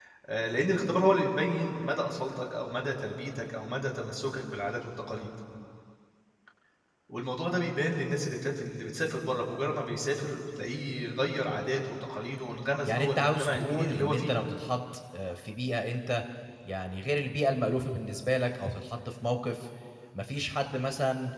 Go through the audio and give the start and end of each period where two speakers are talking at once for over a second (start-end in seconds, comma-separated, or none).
12.9-14.3